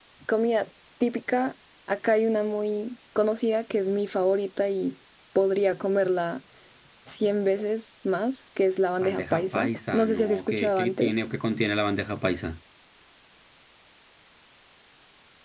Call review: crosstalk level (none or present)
present